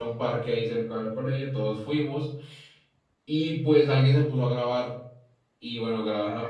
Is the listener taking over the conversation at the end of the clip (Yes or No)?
No